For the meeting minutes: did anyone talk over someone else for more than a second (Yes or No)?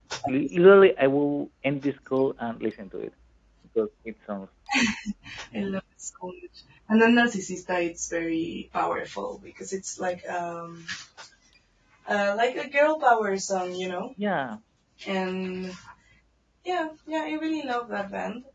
No